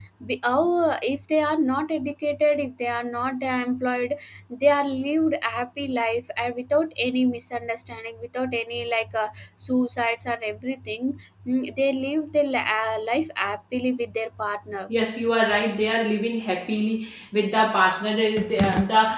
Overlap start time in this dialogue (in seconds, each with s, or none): none